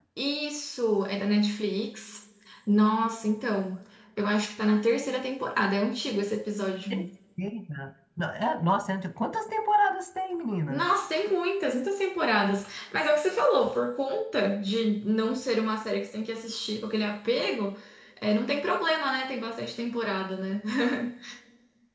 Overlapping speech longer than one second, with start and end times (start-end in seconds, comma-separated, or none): none